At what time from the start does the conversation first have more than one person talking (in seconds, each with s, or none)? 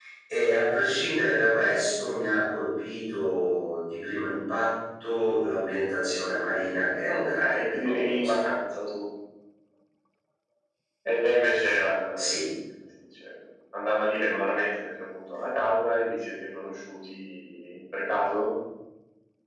7.1 s